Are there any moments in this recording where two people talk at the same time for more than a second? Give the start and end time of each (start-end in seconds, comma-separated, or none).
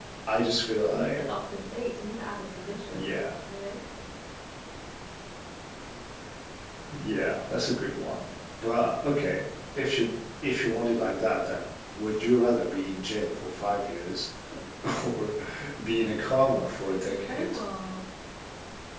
none